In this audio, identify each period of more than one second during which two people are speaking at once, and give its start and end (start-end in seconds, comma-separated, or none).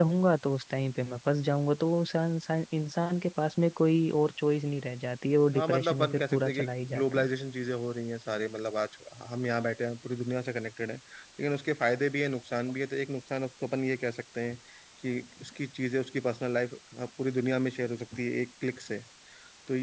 5.5-7.3